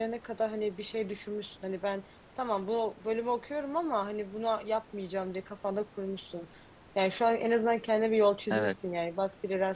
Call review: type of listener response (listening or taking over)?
listening